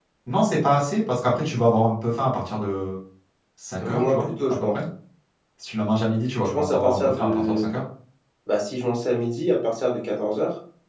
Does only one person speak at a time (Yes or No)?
No